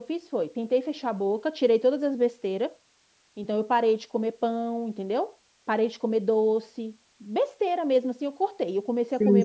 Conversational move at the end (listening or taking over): taking over